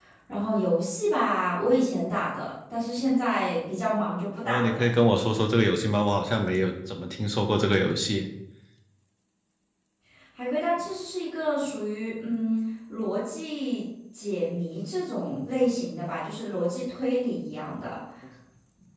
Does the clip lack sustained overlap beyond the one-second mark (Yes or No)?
Yes